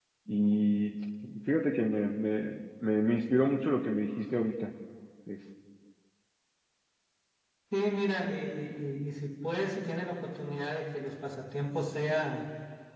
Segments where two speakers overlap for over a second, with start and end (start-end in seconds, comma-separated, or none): none